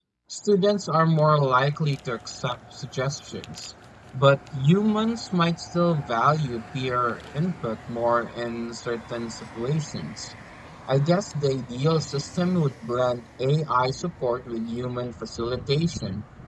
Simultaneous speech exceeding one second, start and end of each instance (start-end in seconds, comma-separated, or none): none